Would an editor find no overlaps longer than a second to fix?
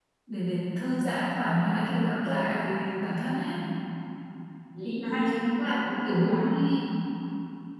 No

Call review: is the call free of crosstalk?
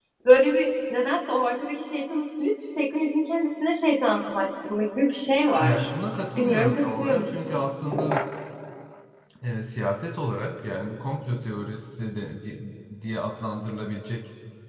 No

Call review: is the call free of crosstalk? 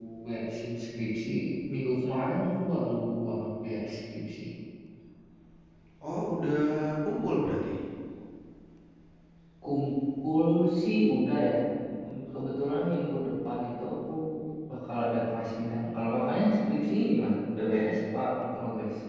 Yes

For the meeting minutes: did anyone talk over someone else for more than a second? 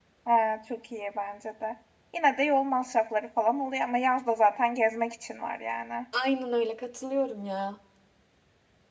No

